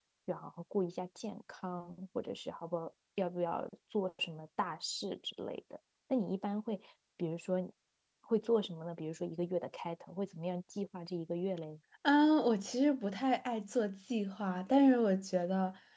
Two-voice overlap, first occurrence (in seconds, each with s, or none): none